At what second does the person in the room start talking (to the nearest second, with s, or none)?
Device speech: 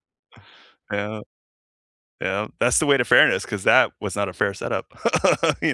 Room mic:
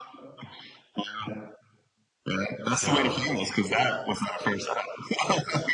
3 s